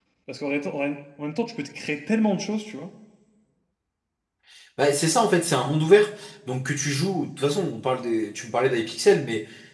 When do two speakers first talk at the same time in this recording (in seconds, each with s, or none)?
none